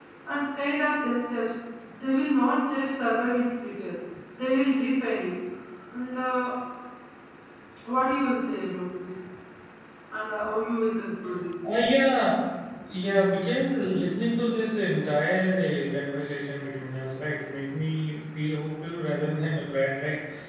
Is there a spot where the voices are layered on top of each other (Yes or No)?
No